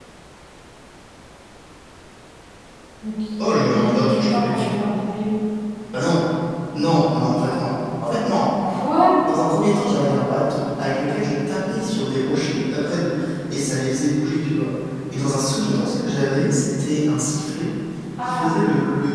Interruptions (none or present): present